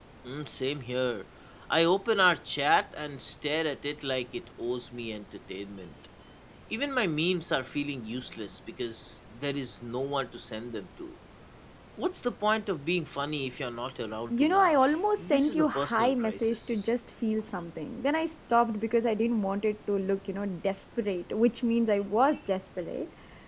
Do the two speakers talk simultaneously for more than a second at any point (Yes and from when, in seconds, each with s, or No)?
Yes, from 14.3 s